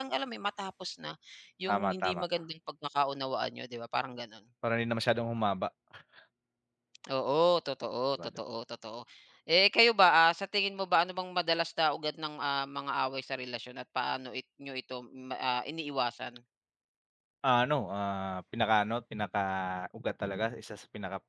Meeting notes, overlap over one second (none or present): none